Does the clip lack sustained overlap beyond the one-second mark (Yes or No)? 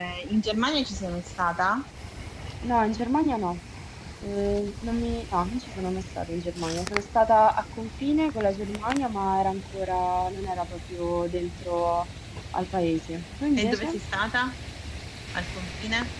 Yes